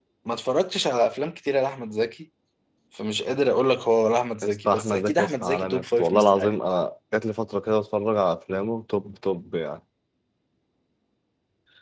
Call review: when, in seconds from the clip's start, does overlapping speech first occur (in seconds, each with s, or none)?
4.4 s